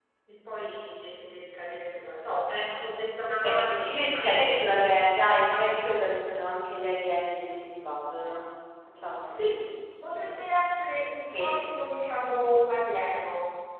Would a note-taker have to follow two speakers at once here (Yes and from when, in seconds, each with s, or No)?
Yes, from 3.4 s